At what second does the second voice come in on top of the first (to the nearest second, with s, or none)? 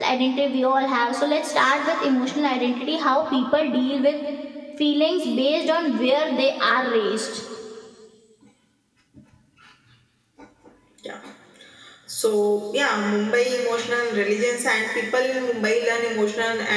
none